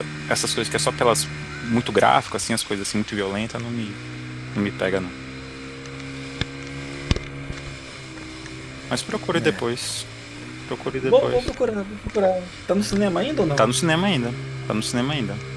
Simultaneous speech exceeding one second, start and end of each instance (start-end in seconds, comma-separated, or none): none